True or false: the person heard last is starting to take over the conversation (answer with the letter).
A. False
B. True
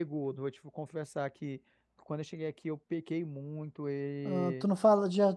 B